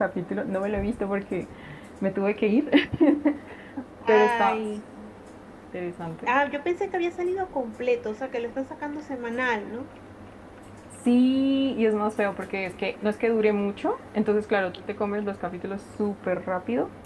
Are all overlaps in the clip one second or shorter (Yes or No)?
Yes